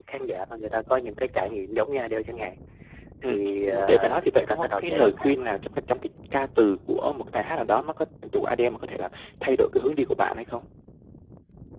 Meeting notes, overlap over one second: present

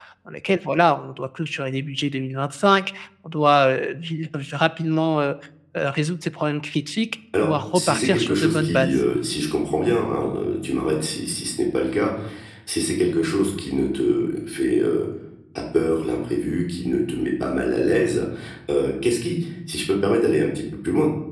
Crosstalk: present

